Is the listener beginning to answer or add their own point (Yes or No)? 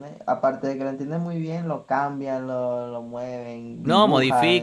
Yes